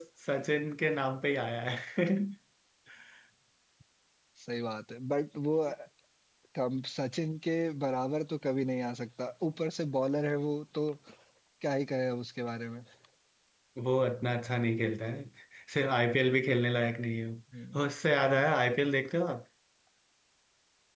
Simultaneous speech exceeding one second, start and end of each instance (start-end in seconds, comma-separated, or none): none